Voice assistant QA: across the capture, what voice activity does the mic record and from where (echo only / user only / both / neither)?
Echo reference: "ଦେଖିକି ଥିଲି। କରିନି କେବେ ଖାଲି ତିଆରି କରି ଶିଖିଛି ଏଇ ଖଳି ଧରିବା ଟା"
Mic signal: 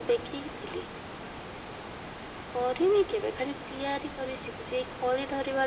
echo only